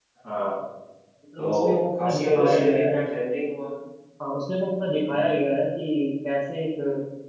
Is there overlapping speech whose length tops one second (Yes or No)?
Yes